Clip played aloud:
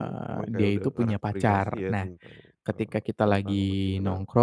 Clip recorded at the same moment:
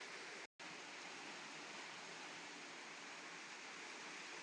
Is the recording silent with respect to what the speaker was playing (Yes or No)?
Yes